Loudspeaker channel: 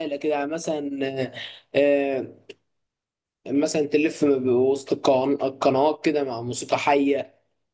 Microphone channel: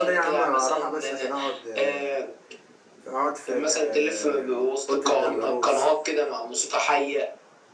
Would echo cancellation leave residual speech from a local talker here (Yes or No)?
Yes